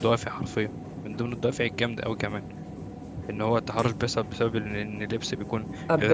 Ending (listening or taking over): listening